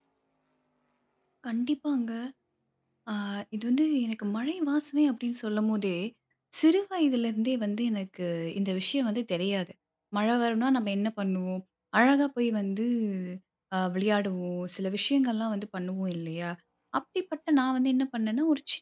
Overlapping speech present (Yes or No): No